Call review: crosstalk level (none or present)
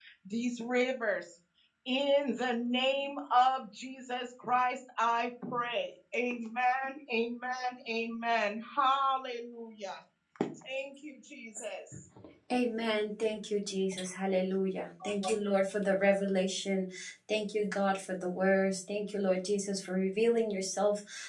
none